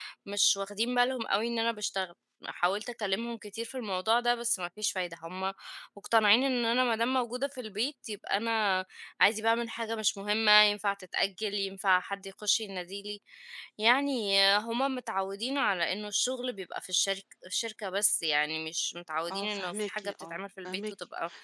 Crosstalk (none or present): present